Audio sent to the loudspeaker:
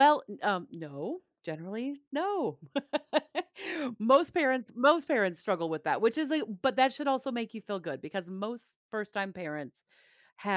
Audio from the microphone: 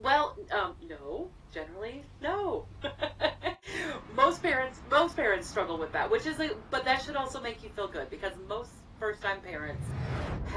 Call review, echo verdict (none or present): present